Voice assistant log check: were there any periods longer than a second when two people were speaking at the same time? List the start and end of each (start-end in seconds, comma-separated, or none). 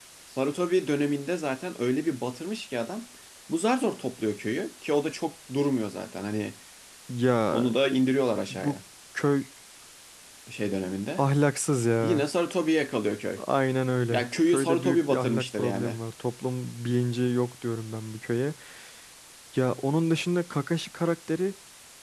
14.1-16.0